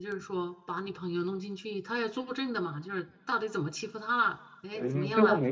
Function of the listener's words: taking over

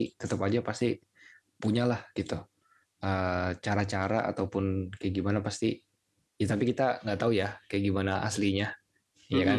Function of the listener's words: taking over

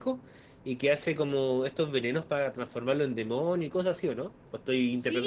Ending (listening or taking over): taking over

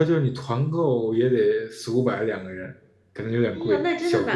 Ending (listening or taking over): taking over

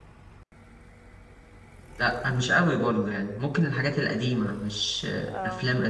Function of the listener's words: listening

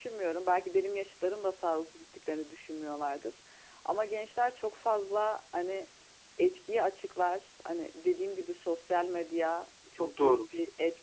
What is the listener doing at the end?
listening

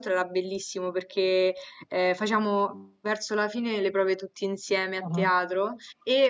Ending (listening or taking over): listening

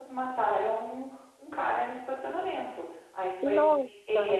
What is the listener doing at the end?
listening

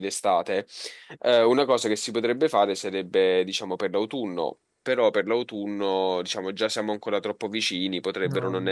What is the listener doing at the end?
listening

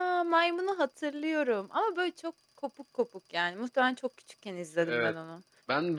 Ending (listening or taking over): taking over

